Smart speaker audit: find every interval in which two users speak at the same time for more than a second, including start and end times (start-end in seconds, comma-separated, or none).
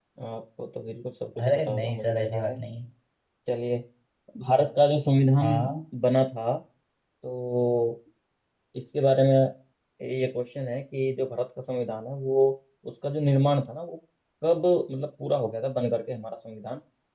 1.4-2.6